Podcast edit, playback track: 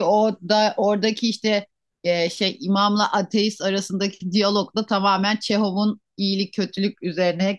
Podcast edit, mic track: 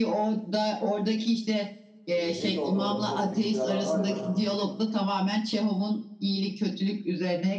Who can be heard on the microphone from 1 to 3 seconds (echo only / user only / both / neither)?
both